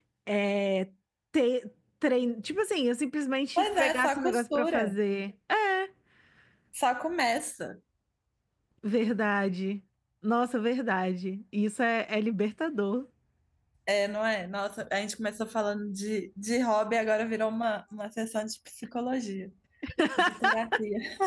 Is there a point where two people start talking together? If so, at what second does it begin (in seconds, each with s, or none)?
3.6 s